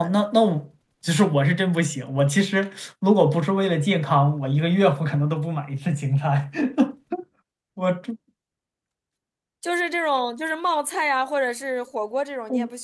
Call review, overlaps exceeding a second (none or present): none